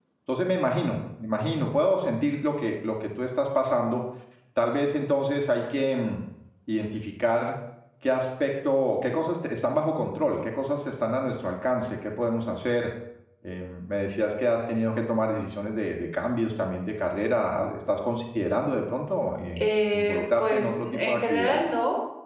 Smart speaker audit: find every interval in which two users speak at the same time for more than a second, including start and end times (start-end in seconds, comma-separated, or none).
19.6-21.6